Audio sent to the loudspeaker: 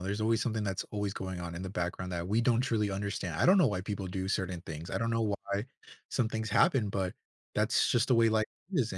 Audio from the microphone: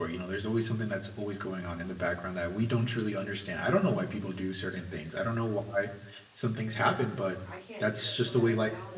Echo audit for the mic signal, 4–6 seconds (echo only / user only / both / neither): echo only